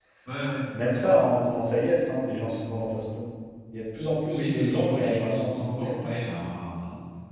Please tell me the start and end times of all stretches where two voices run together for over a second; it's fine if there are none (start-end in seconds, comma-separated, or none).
4.3-6.1